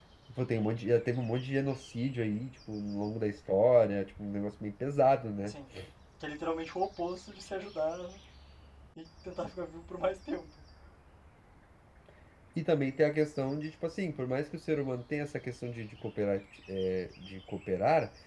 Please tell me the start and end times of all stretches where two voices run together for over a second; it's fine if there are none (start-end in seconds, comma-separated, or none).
none